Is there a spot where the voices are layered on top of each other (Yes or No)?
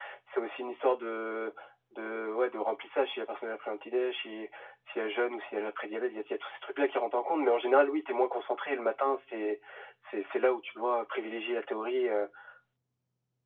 No